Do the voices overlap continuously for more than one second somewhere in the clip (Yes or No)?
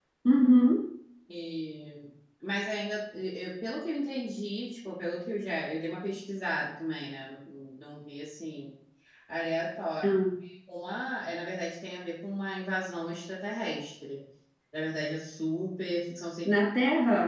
No